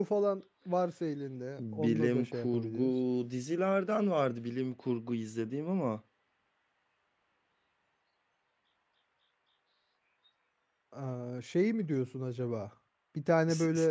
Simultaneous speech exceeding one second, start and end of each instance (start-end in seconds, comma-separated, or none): 1.6-2.9